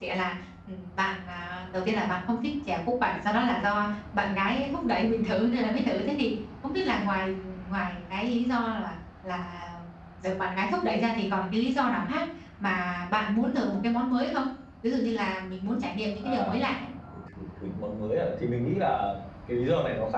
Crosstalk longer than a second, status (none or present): none